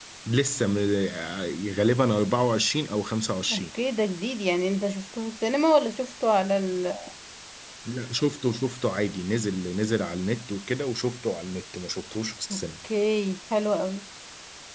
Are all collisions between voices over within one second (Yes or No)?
Yes